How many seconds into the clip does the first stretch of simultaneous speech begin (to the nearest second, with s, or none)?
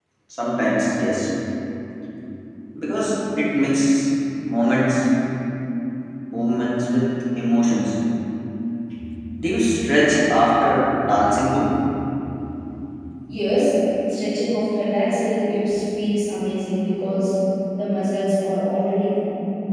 none